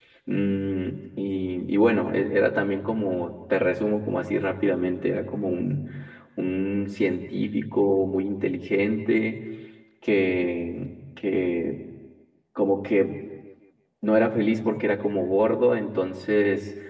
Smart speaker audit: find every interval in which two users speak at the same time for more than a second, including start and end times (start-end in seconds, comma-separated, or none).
none